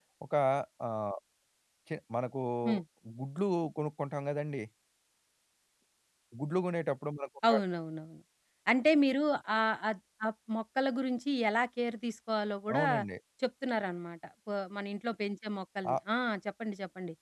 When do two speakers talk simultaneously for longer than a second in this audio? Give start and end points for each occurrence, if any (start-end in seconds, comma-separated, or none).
none